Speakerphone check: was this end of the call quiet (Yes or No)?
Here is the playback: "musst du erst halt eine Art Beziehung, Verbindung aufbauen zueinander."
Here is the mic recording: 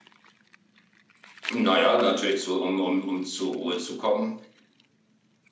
No